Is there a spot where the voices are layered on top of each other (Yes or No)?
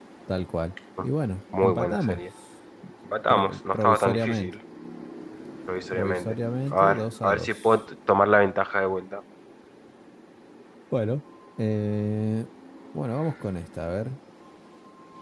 Yes